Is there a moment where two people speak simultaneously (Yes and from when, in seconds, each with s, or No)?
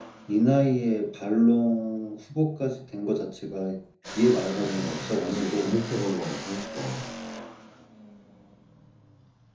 Yes, from 4.3 s